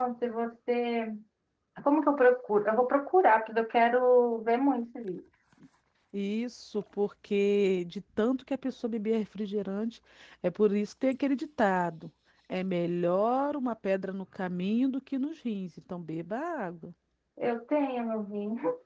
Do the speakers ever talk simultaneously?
No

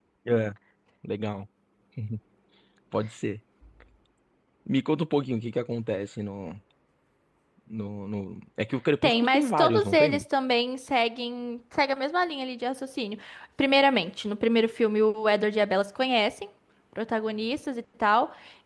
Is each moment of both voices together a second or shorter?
No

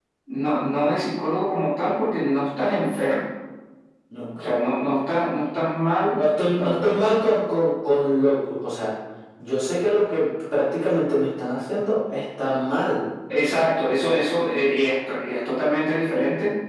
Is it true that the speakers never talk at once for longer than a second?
Yes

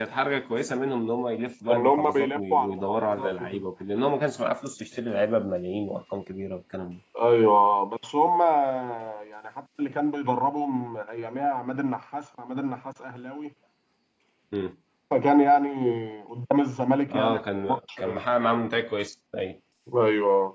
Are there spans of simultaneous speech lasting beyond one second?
Yes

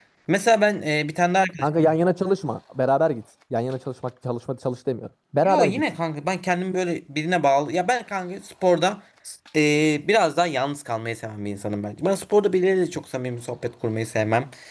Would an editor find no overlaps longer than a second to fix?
Yes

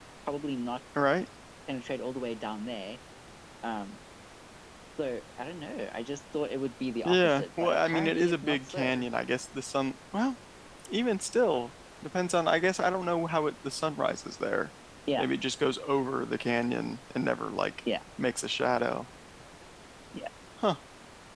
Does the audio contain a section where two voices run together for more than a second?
Yes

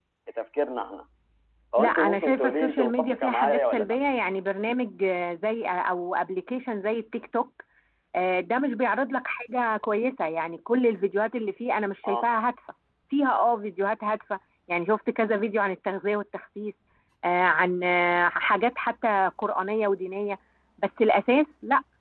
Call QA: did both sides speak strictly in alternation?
No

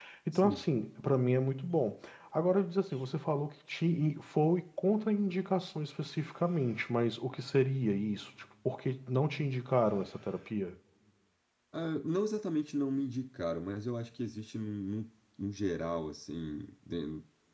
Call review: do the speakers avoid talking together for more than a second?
Yes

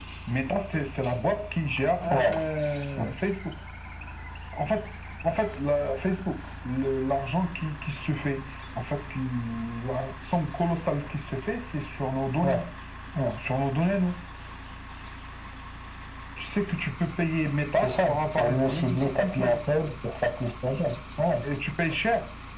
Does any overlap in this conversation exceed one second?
Yes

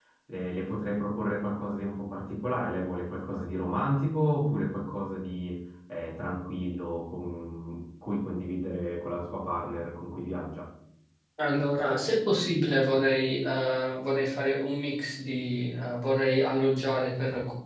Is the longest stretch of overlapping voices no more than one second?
Yes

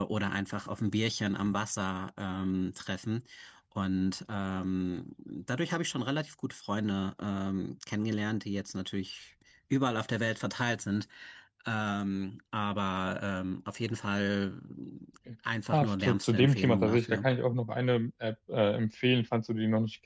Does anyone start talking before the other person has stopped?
Yes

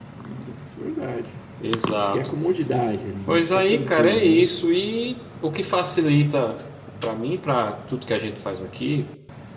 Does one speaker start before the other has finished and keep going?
Yes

